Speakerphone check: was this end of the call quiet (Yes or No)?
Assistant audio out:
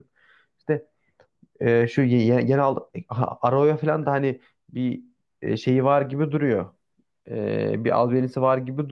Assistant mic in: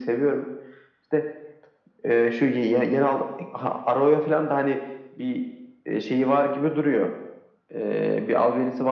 Yes